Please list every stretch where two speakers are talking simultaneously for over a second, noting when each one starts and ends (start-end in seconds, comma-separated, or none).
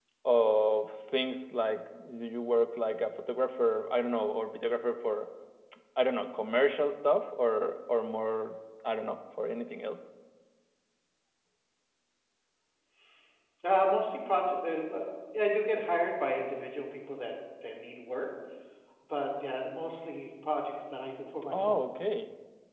none